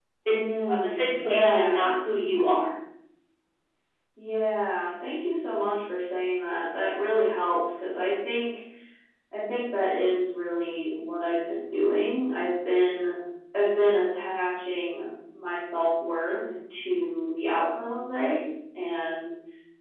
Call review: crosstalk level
present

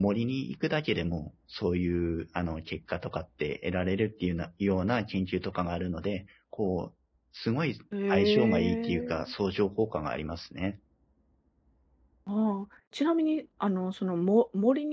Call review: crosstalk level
present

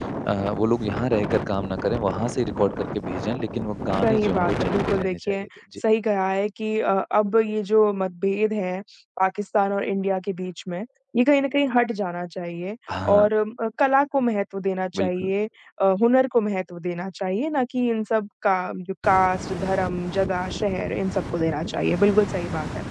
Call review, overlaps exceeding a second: present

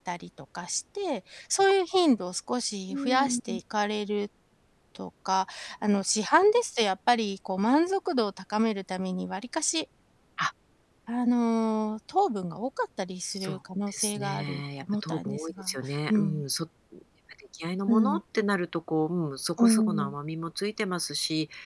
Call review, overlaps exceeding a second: present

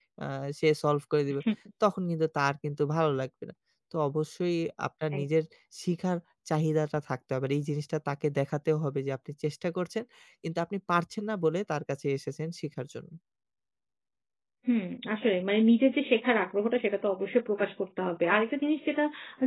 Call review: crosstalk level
none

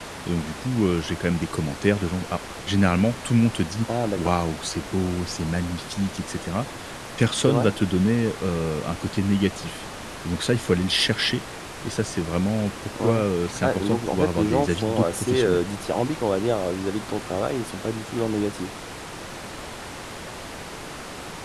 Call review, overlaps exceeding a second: present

